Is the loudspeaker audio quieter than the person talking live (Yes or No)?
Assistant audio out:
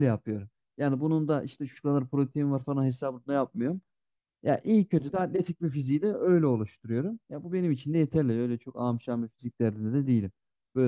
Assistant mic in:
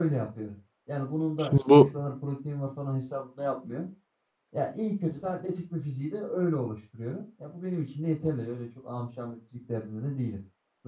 Yes